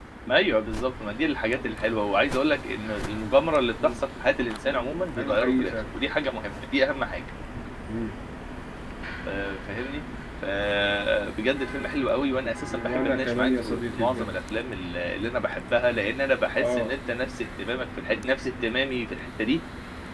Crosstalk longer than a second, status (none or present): present